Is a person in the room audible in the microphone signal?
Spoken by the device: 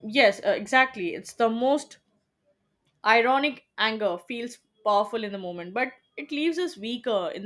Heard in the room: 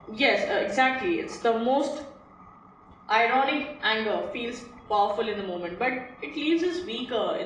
No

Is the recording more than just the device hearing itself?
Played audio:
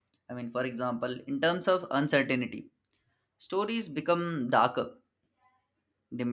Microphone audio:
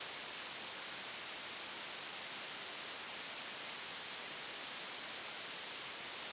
No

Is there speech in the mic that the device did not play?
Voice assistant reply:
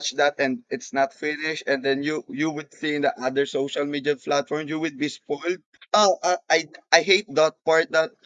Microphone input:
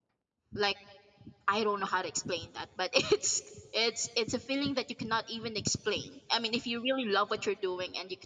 Yes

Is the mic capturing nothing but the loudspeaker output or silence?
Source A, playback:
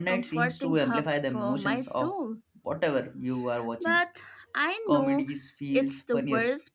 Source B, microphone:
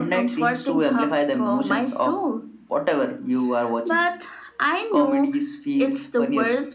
Yes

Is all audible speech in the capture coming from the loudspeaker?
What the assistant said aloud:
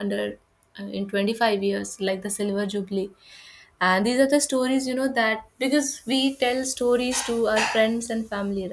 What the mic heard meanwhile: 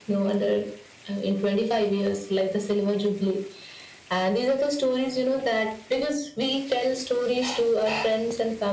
Yes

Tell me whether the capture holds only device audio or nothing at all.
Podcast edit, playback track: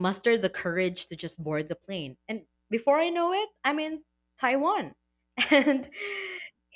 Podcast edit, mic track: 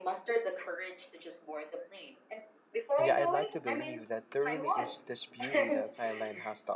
No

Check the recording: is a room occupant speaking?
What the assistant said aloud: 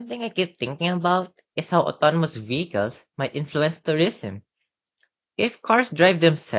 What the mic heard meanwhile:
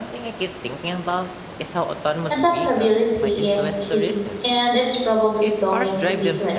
Yes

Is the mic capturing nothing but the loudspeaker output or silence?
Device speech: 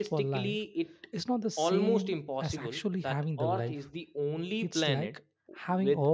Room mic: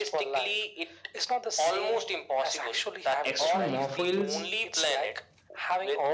No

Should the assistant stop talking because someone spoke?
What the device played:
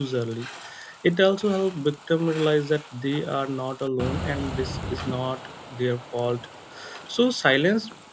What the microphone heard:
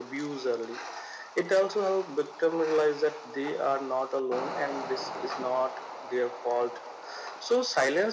No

